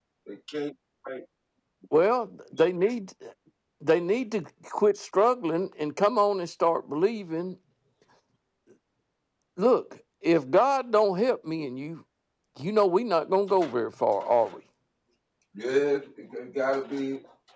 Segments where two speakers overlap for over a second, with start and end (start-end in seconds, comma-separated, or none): none